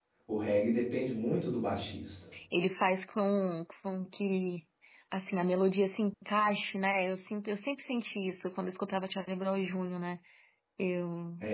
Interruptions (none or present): none